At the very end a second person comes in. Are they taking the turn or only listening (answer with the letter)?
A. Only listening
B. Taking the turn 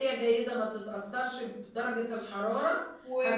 B